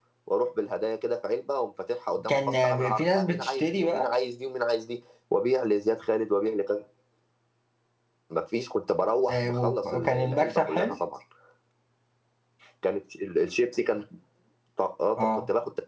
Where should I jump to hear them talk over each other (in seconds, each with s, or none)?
2.3 s